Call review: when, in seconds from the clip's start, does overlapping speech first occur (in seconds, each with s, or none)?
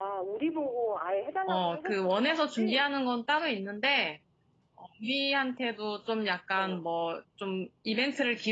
1.5 s